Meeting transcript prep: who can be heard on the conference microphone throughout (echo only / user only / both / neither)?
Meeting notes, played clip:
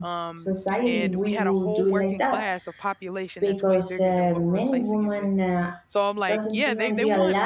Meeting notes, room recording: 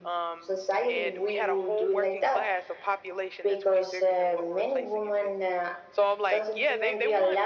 echo only